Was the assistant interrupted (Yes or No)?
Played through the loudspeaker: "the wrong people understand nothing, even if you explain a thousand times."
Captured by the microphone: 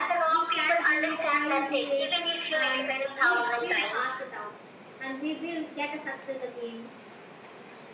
Yes